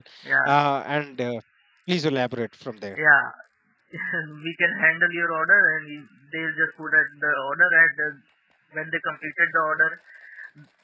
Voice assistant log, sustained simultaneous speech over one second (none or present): none